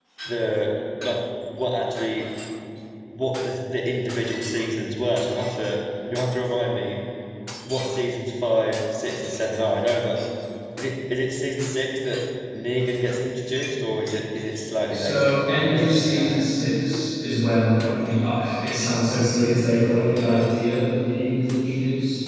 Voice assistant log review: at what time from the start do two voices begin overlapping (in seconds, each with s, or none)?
14.9 s